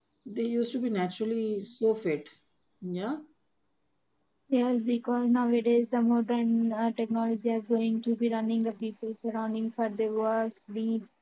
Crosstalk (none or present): none